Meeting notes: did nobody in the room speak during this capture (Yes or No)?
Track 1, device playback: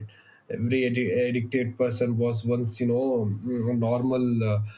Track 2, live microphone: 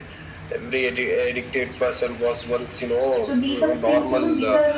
No